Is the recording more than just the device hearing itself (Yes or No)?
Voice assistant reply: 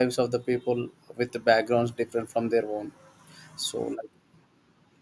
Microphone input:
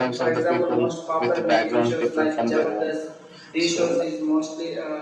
Yes